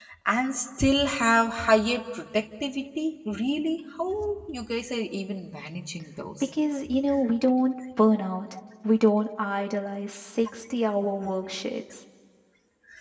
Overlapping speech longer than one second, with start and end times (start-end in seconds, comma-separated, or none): none